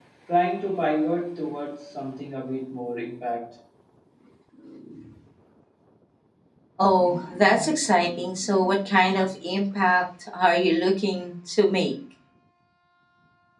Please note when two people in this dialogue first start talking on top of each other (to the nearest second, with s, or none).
none